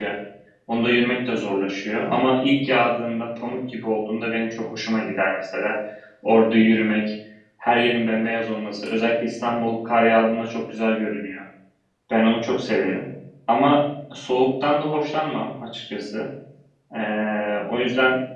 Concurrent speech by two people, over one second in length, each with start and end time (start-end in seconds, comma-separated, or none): none